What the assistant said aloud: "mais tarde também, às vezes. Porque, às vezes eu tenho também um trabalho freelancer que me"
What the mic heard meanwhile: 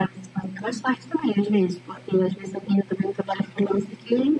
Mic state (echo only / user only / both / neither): echo only